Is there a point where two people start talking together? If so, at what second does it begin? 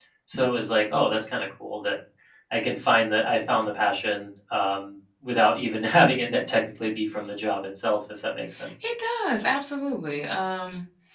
none

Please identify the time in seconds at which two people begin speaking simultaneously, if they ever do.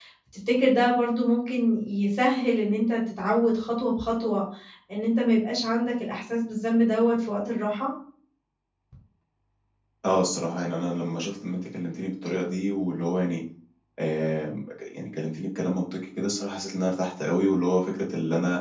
none

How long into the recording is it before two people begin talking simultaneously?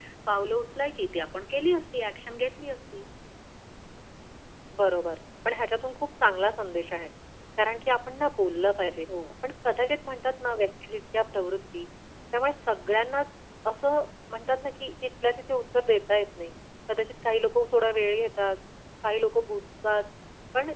none

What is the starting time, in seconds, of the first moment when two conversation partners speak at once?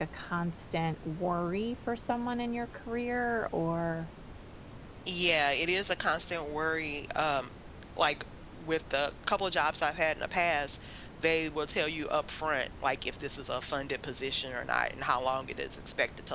none

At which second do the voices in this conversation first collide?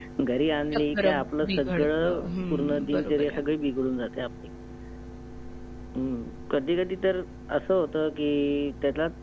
0.7 s

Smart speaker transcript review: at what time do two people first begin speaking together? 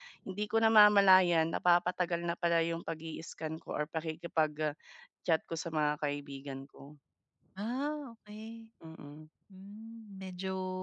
none

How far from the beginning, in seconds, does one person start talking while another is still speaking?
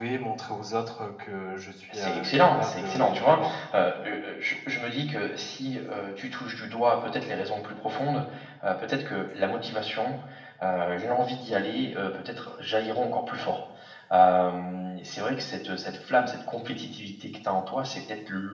1.9 s

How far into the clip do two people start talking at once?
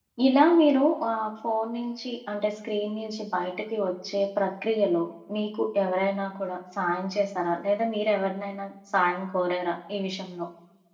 none

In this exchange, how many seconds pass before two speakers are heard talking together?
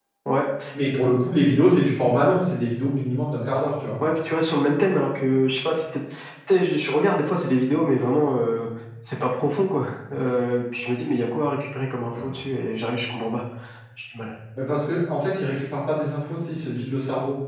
none

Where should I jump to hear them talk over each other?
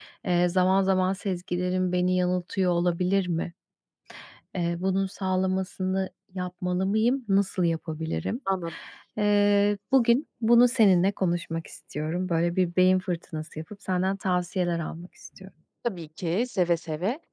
none

